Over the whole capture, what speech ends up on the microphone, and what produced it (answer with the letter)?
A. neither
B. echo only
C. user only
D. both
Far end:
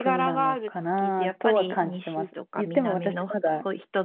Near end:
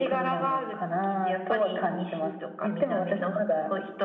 B